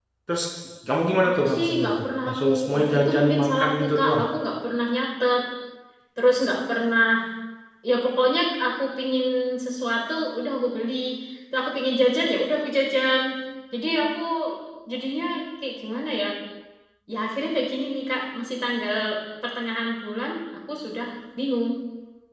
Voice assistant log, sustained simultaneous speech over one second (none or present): present